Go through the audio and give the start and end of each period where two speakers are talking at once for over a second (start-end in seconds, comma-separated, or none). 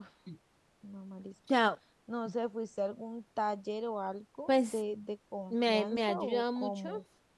5.5-6.9